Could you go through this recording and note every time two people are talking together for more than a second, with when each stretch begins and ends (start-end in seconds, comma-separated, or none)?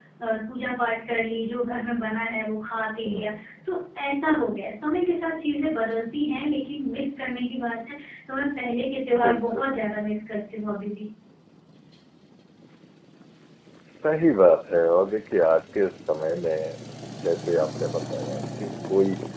none